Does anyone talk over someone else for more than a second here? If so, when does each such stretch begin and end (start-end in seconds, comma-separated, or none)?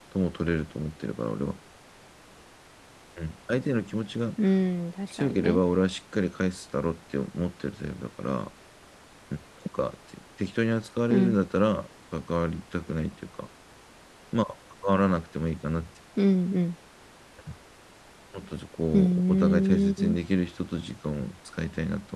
18.9-20.2